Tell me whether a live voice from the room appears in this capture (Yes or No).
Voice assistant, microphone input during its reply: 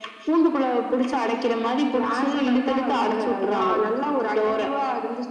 No